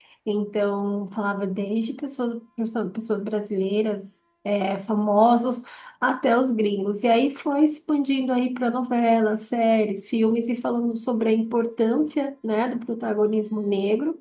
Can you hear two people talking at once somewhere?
No

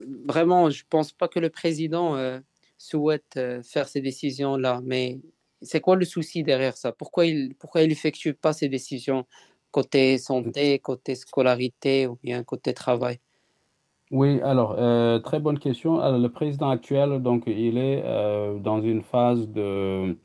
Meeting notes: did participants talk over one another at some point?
No

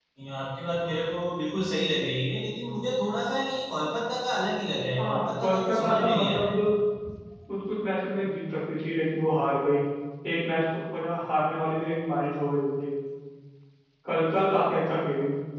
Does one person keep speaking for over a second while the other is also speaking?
Yes, from 5.0 s

